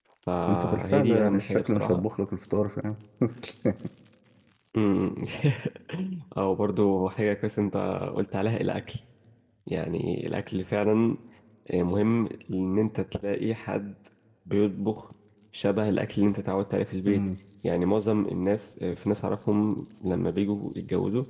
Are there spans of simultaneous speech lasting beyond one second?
Yes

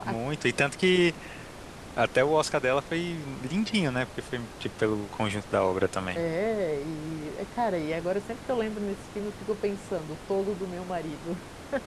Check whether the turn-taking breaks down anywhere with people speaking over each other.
No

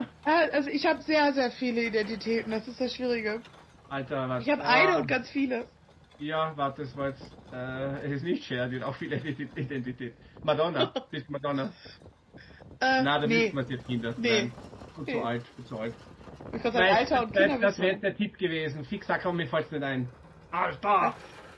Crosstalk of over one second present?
Yes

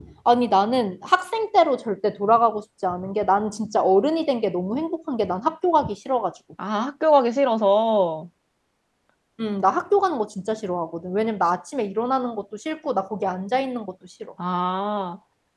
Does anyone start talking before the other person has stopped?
No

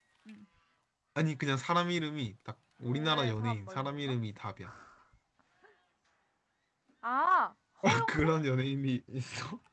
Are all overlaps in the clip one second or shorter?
No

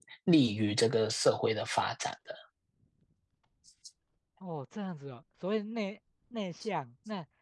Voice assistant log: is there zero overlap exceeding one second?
Yes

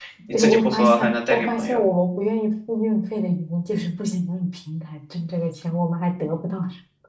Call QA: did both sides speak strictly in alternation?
No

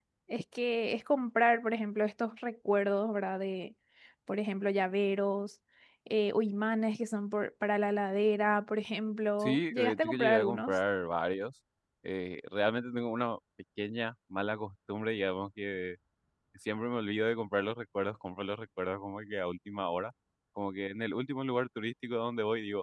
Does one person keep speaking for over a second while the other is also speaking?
Yes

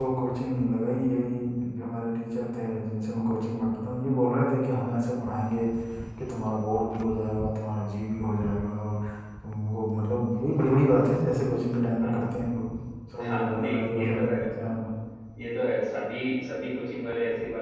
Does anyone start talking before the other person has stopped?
Yes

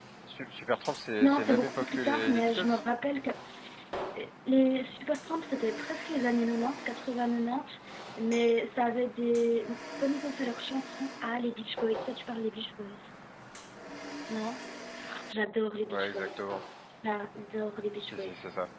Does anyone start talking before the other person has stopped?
Yes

